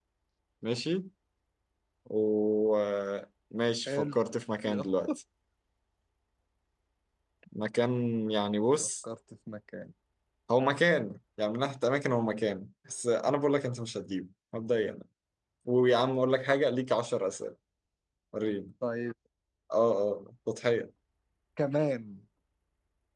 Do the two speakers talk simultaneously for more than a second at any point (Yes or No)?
No